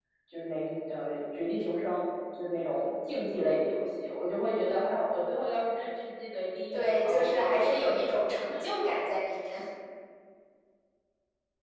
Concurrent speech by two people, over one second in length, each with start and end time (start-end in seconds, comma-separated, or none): 6.7-8.2